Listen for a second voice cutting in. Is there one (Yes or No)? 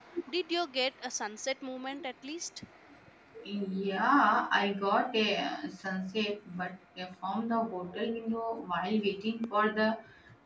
No